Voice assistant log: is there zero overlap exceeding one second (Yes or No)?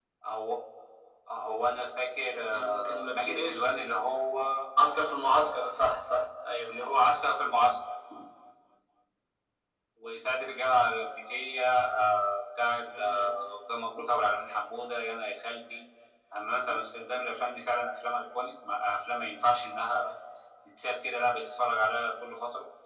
No